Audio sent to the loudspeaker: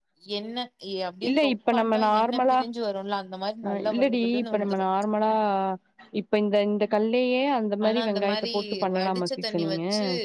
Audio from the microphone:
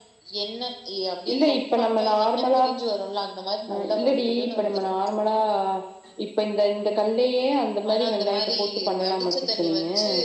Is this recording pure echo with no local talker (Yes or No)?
Yes